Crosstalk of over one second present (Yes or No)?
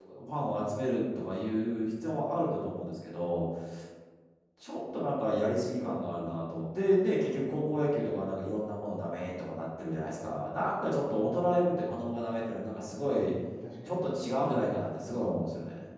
Yes